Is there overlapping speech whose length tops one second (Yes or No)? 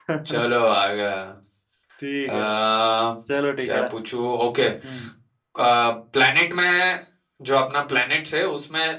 No